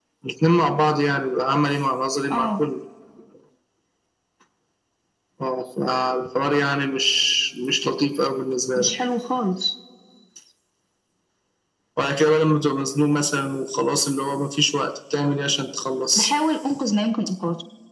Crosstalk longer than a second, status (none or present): none